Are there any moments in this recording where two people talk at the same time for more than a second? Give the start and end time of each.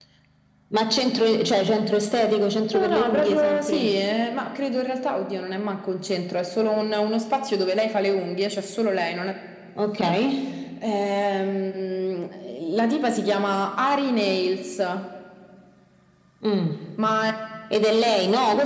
2.7-4.0

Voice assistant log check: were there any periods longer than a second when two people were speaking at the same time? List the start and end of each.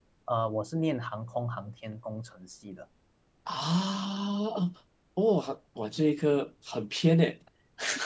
none

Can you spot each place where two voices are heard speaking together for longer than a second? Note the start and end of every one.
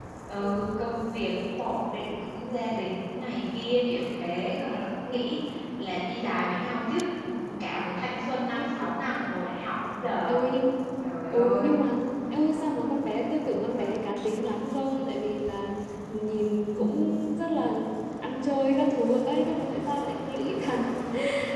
none

